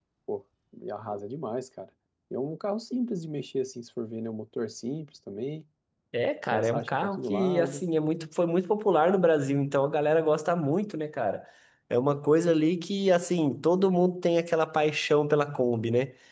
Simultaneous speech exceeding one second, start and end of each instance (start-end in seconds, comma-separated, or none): 6.5-7.8